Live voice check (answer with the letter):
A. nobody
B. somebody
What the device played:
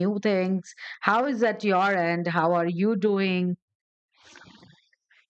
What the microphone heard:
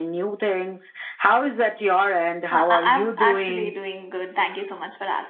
B